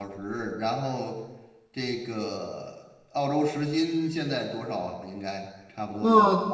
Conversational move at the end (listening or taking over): taking over